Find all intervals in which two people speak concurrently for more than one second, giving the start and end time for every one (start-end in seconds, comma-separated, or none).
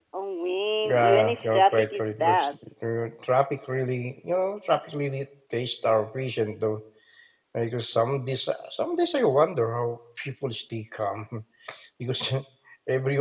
0.9-2.5